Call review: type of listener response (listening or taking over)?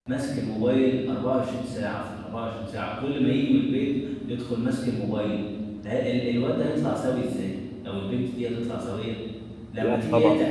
listening